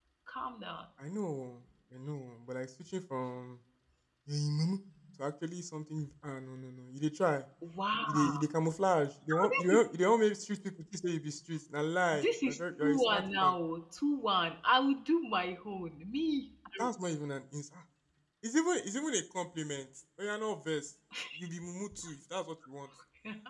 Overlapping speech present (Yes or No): Yes